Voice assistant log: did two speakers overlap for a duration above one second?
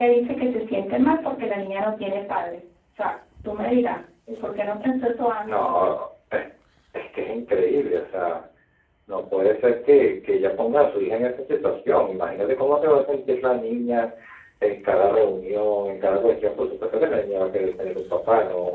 No

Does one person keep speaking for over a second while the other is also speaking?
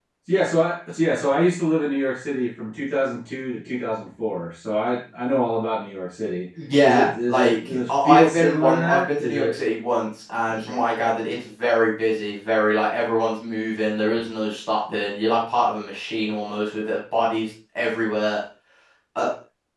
Yes, from 6.8 s

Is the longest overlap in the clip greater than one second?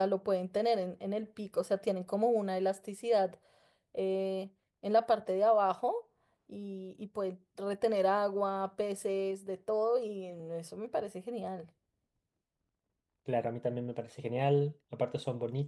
No

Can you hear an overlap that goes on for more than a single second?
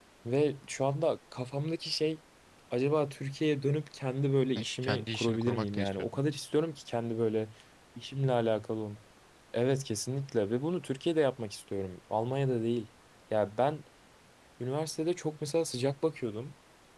Yes, from 4.6 s

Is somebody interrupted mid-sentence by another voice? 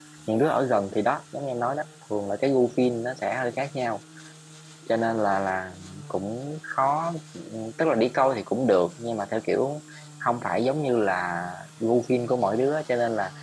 No

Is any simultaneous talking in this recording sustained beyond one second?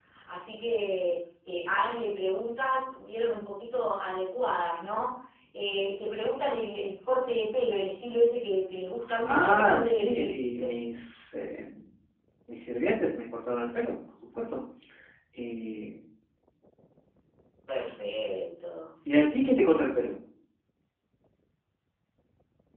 Yes, from 9.1 s

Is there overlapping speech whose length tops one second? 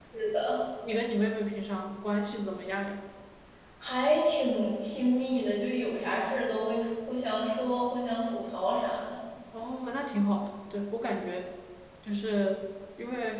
No

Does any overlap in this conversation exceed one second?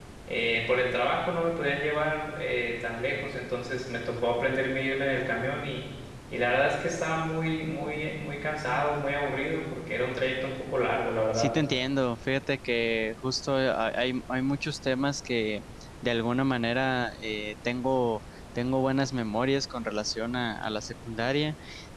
No

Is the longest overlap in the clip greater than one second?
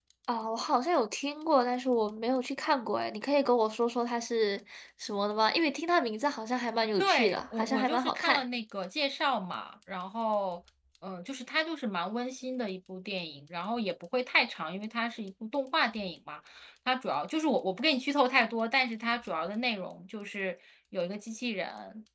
Yes, from 7.0 s

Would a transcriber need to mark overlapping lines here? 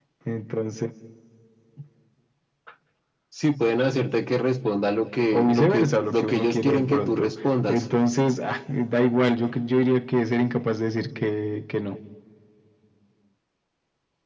Yes, from 5.3 s

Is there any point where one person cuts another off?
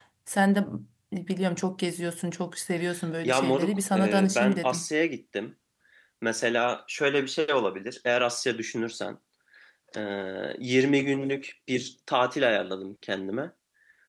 Yes, from 3.2 s

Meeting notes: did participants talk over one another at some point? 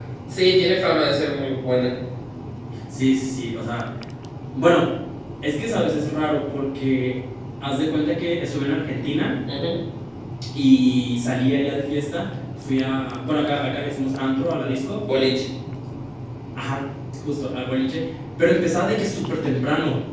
No

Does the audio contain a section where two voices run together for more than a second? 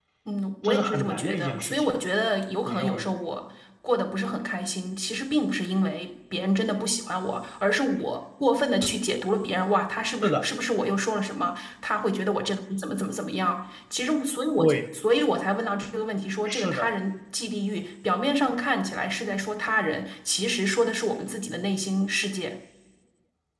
Yes, from 0.6 s

